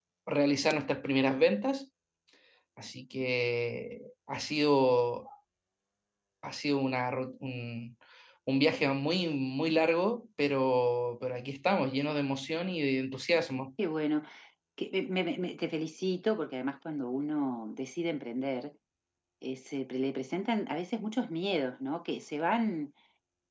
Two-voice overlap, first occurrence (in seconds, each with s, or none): none